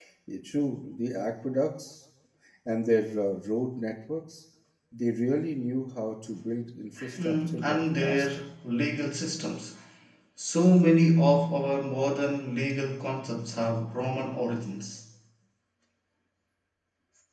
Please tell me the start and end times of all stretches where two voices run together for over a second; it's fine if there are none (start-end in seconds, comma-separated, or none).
7.2-8.4